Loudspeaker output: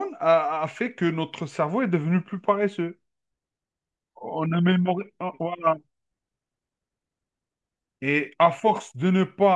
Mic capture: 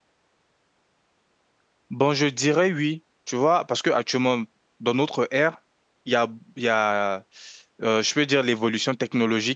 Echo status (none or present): none